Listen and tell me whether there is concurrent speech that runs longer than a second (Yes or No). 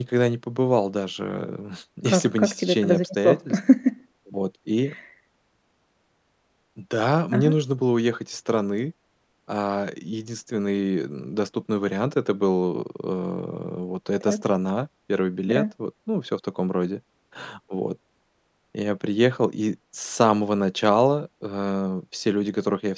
Yes